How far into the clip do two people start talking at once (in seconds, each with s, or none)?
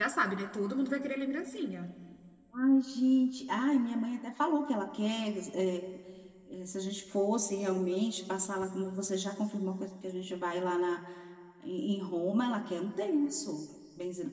none